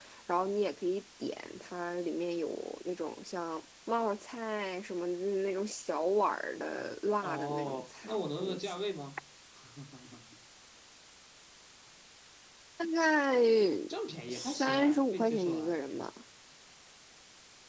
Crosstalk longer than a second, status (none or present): present